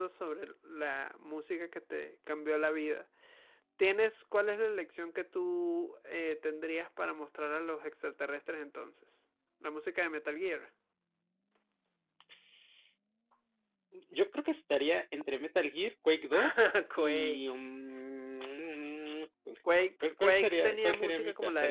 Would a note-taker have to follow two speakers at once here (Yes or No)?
Yes